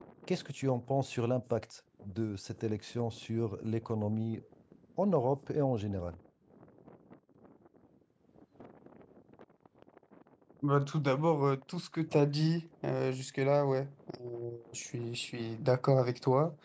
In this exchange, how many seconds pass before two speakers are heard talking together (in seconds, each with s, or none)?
none